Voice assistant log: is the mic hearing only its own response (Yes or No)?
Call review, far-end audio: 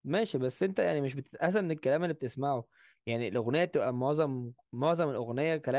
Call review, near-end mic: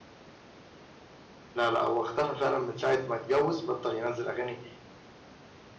No